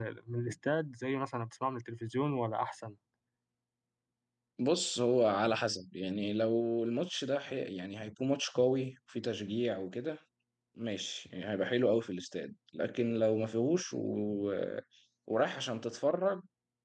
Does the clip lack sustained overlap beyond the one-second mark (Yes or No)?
Yes